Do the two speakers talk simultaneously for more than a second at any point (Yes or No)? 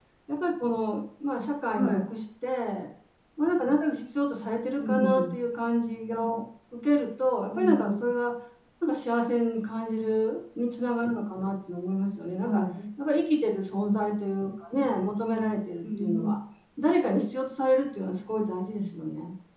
No